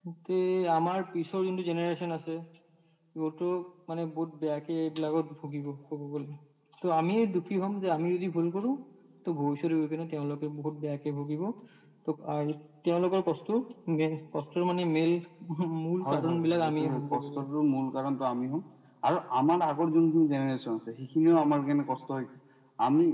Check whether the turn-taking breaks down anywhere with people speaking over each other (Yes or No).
Yes